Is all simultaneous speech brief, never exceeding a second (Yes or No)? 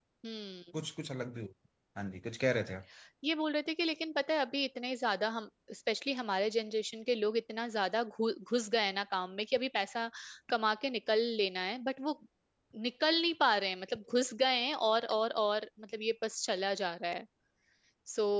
Yes